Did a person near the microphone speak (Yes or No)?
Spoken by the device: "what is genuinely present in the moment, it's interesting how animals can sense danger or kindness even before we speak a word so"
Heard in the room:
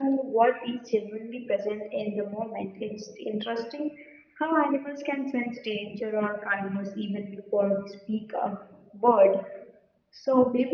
No